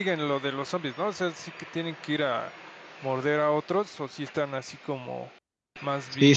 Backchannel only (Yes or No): No